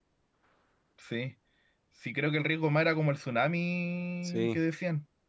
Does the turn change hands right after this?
No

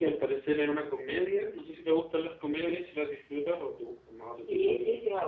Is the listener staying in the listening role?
No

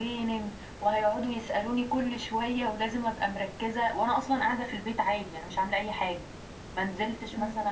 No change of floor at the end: Yes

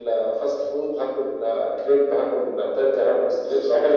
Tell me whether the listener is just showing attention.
No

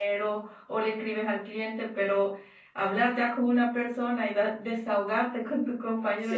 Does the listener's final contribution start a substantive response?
No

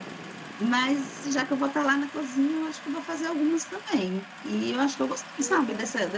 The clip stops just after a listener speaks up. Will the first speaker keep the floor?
Yes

